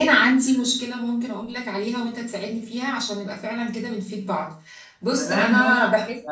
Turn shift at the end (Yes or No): Yes